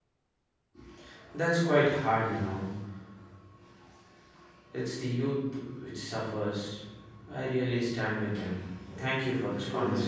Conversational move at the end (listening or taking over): taking over